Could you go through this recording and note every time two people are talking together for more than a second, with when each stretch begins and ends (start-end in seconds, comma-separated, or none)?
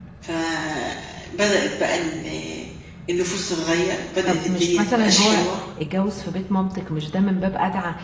4.3-5.5